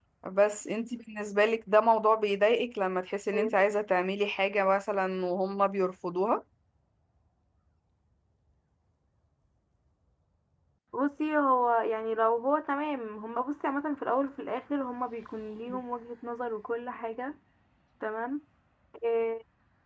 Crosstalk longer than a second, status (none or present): none